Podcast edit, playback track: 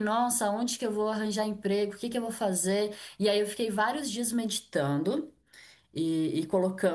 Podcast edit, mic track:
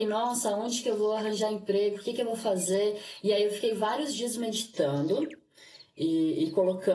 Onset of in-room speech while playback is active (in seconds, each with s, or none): none